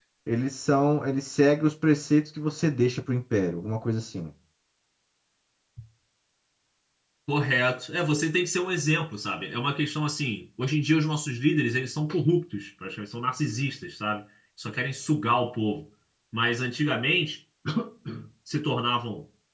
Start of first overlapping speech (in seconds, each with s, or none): none